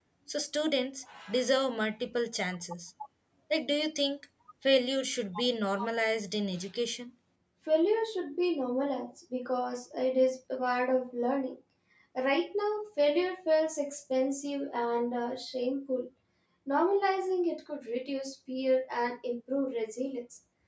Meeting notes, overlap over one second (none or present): none